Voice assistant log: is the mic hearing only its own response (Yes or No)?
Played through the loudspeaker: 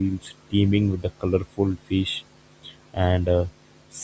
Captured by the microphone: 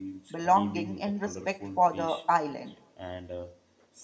No